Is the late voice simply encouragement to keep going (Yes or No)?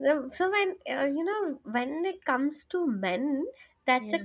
Yes